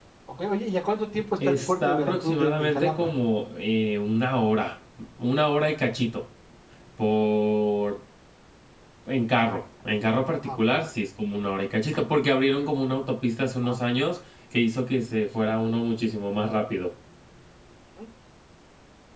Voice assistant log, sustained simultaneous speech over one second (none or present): present